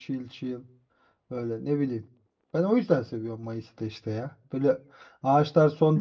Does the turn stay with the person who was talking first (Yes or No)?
Yes